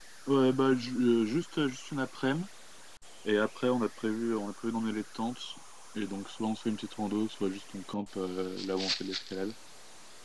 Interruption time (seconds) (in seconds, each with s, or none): none